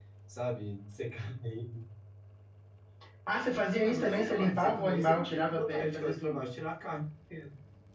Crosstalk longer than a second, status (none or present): present